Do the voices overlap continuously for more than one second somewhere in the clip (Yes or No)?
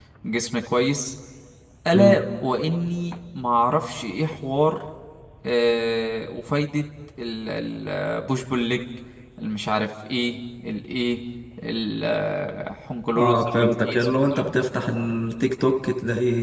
Yes